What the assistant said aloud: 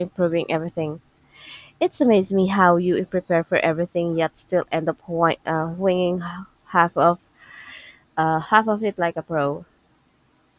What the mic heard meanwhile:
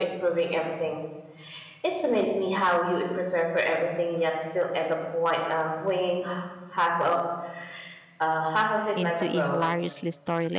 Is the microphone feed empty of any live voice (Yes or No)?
No